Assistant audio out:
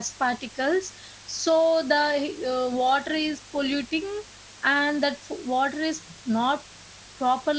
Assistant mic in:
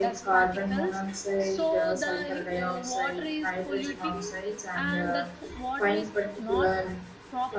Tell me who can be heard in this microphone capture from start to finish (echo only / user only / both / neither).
both